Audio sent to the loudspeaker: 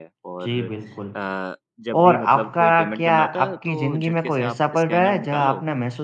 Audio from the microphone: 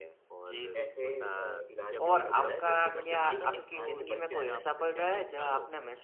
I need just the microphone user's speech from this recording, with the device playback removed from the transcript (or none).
कुछ ऐसे अ, इलाज भी वो कर दे रहा है जो मतलब एक इंसान के बस में नहीं है।